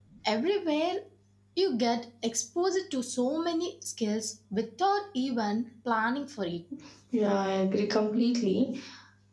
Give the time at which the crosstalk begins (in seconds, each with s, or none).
none